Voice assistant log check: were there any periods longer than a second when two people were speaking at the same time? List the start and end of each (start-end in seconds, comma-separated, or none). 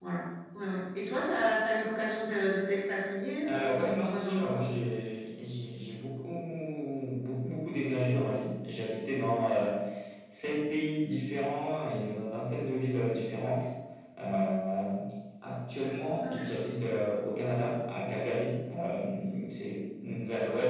3.5-4.7